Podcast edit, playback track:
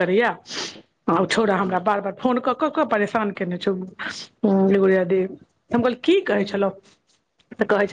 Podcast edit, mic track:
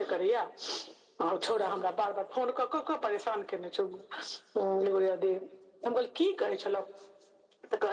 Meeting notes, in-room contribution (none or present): none